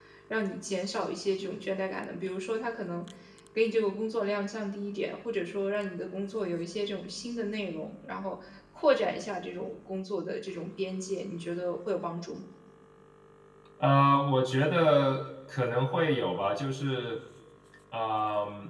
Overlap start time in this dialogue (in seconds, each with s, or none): none